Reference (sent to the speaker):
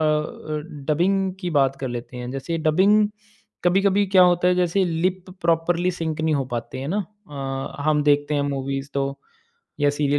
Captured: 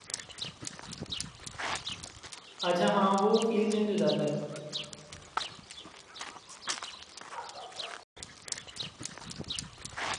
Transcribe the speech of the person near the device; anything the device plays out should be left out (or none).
अच्छा हाँ, वो फ़ील चेंज हो जाता है।